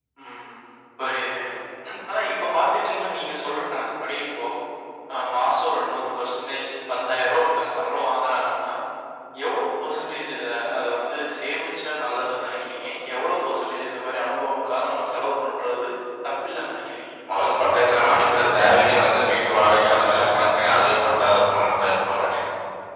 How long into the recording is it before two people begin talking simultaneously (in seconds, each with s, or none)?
none